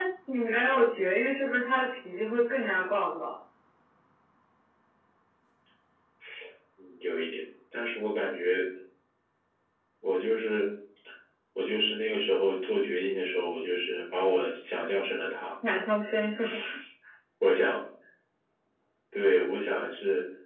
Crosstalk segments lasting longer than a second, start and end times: none

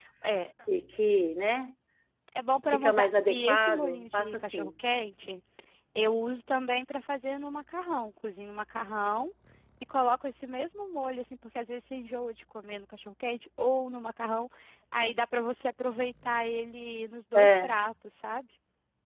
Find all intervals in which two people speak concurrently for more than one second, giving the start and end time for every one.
2.7-4.7

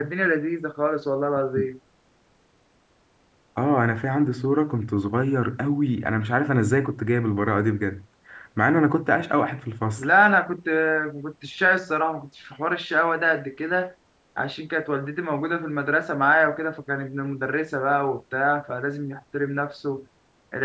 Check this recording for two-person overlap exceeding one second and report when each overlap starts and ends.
none

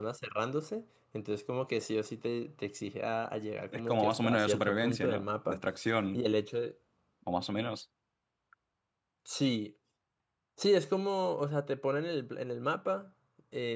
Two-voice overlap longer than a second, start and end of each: 3.7-5.6

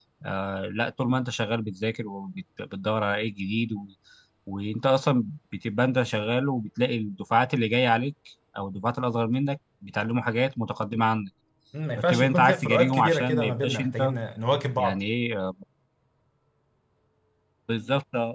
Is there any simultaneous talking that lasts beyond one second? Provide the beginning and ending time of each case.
12.0-14.0

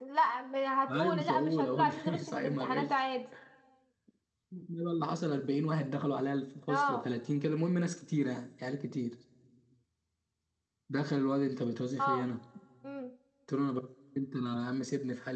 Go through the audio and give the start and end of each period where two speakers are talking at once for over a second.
0.9-2.9

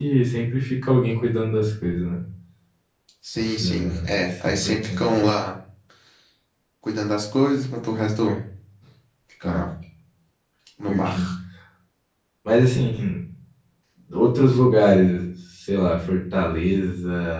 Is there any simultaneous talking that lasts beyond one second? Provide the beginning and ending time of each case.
3.6-5.2

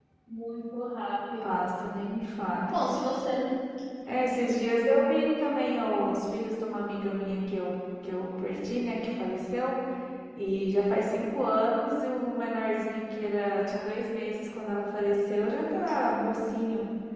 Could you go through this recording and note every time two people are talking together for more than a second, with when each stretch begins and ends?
none

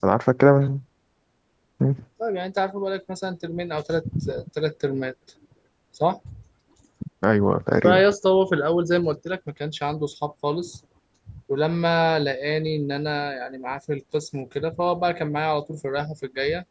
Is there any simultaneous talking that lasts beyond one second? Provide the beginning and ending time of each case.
none

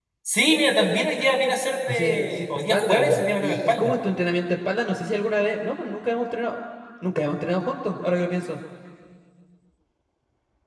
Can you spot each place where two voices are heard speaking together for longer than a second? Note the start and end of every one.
1.9-3.9

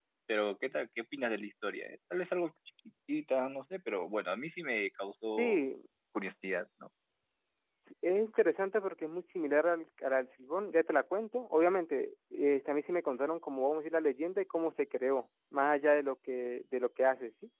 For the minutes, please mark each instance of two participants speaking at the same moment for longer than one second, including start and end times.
none

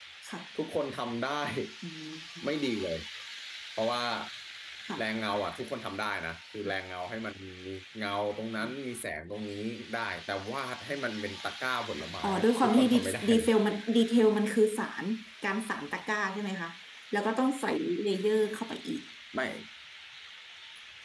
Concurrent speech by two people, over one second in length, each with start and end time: 12.2-13.5

